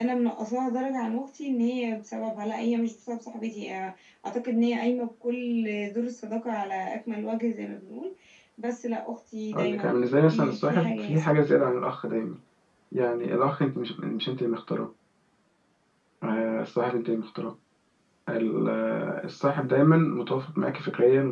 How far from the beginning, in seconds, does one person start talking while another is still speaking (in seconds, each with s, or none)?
9.5 s